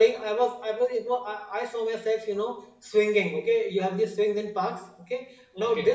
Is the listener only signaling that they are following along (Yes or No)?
Yes